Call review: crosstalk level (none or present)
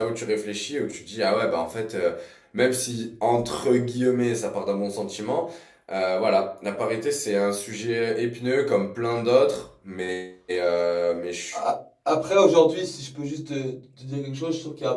none